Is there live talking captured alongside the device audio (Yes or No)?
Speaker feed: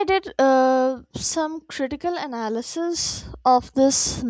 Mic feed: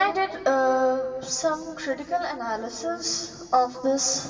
No